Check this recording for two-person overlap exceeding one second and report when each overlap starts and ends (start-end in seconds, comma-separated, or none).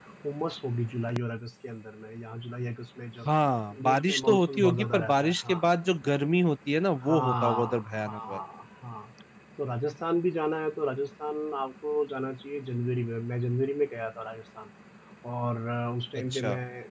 3.8-5.6, 7.0-8.4